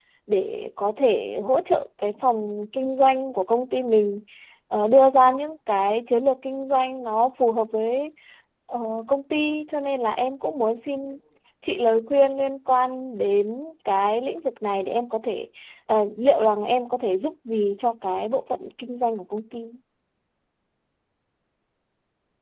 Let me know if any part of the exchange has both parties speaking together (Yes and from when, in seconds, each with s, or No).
No